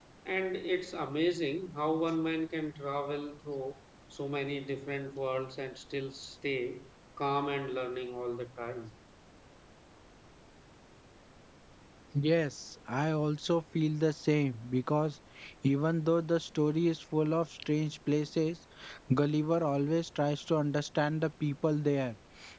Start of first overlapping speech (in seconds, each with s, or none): none